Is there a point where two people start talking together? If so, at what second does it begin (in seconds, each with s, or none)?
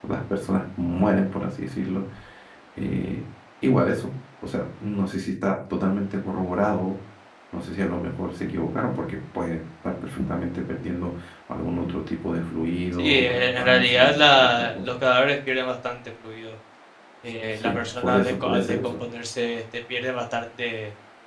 12.9 s